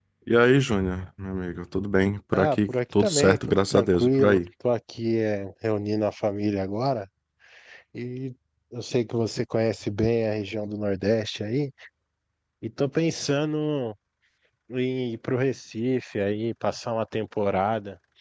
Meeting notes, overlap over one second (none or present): present